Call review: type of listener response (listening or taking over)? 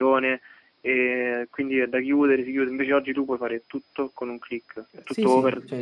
taking over